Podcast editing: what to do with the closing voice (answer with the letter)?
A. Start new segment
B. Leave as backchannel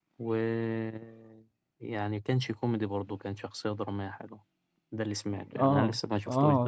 A